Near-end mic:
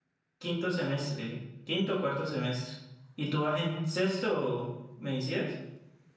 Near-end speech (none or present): present